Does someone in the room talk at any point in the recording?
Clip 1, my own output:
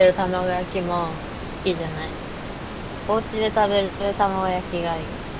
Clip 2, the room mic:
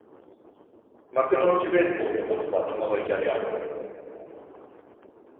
Yes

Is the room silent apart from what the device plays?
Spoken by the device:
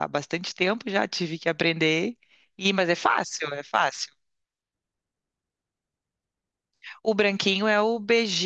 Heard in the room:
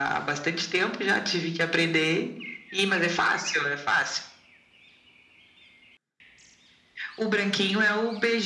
Yes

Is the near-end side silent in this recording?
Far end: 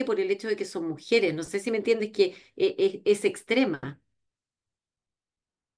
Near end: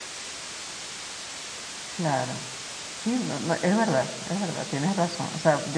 No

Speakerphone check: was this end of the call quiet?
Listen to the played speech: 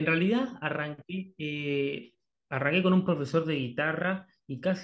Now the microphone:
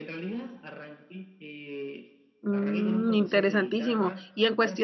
No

